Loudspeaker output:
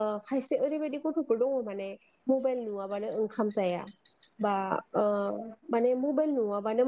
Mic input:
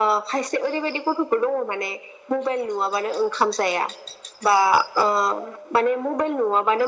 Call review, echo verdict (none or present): present